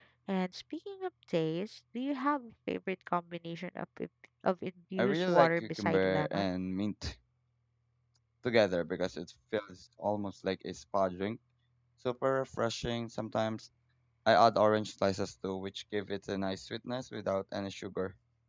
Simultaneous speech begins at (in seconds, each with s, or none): 5.0 s